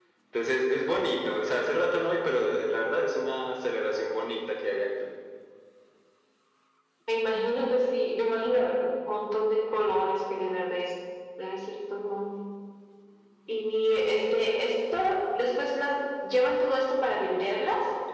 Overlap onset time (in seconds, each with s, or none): none